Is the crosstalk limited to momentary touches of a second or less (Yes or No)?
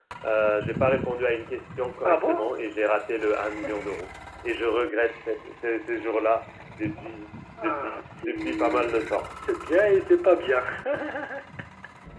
No